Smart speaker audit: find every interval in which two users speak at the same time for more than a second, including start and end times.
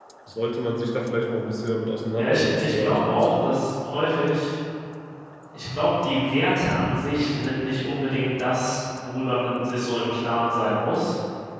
2.2-3.5

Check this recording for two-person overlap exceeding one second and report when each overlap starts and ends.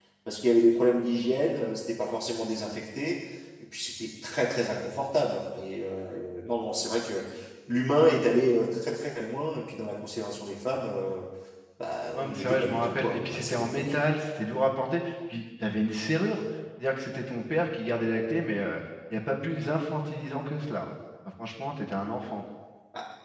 12.2-13.9

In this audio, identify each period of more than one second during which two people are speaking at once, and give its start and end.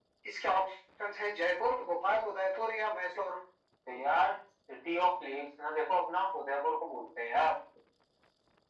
none

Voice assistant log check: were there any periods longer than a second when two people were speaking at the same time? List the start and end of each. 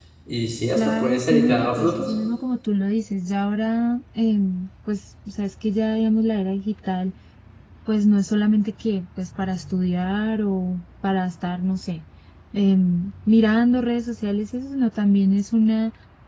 0.8-2.1

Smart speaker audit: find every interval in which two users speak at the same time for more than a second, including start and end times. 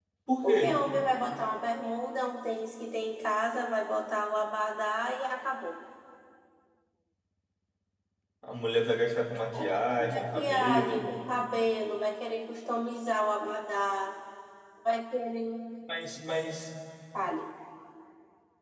9.7-11.2

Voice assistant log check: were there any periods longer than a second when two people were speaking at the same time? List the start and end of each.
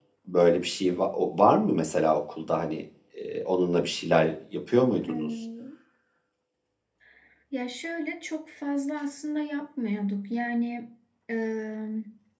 none

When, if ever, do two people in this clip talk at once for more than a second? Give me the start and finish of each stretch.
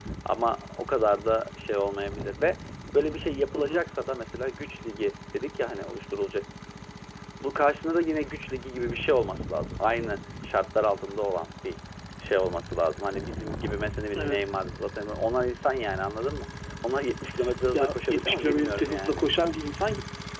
17.7-19.3

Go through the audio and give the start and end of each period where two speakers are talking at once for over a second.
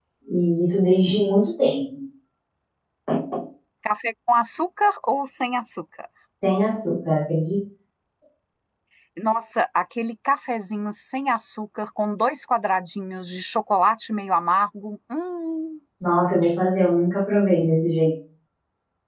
none

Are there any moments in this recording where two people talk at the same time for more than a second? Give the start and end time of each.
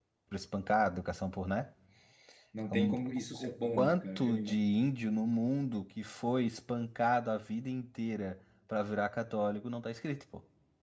3.4-4.6

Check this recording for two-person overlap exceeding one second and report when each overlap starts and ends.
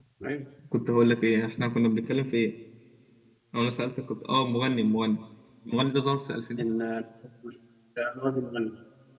none

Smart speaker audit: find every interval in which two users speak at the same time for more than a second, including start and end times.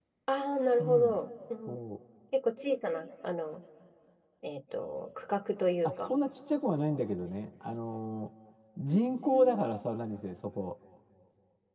none

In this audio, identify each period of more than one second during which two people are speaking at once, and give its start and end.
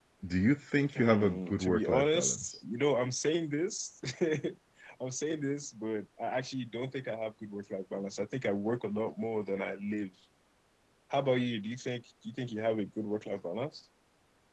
0.9-2.5

